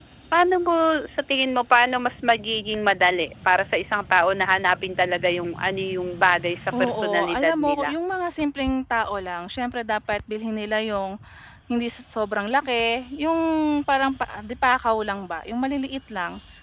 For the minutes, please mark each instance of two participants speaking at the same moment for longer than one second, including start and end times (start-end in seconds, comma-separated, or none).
6.7-7.9